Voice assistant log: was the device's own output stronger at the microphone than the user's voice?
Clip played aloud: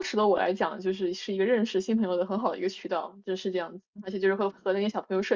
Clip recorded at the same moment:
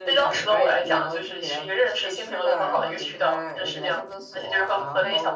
Yes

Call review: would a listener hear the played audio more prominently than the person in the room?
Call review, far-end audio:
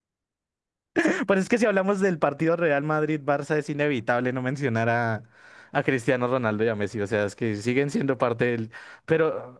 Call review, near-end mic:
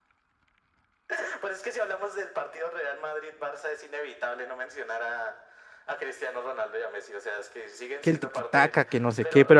No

